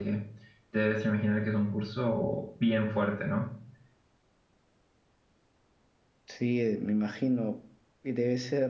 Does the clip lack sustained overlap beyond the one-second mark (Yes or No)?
Yes